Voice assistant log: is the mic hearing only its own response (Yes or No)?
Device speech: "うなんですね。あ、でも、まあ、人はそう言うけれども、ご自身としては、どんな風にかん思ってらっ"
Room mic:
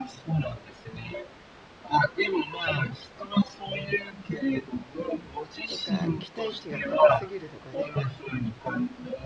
No